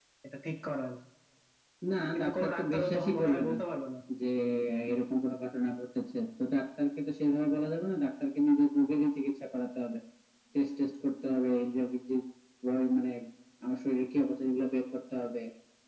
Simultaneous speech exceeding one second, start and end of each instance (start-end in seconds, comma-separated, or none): 2.1-3.5